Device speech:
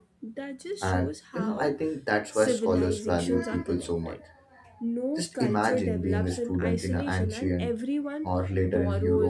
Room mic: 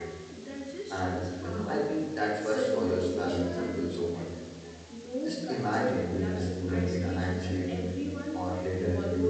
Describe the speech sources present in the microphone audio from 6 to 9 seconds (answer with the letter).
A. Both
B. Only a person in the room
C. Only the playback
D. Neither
C